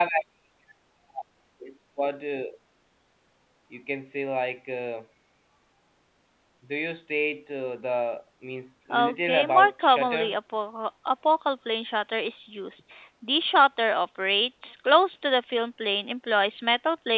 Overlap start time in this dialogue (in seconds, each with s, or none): 8.9 s